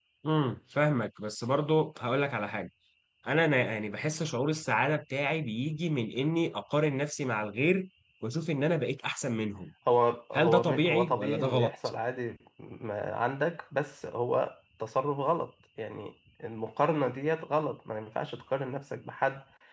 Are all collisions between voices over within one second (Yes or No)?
No